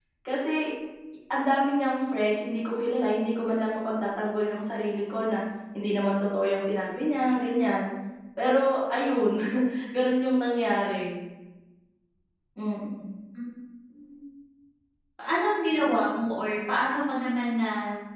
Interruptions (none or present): none